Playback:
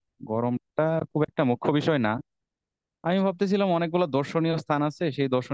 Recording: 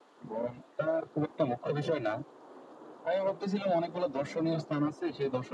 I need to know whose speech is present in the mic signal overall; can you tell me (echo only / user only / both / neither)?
echo only